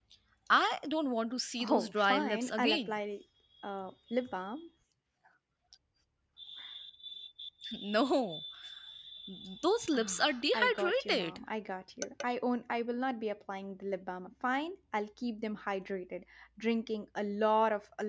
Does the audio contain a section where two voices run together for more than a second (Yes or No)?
Yes